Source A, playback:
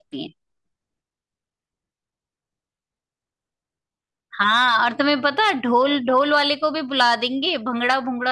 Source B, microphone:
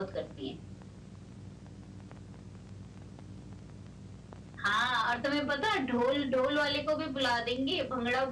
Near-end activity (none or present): none